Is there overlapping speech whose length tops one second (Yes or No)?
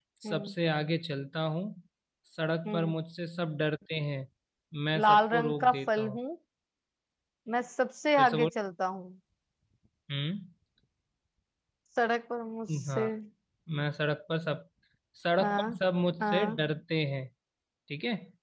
Yes